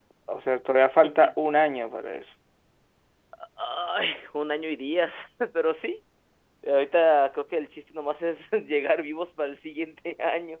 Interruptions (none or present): none